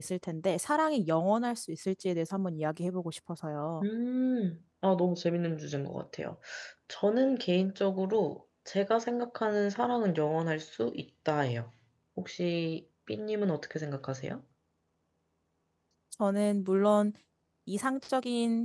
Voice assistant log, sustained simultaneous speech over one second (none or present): none